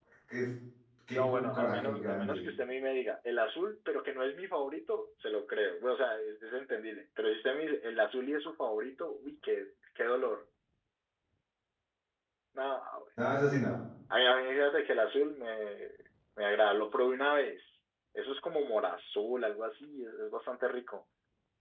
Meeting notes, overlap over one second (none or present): present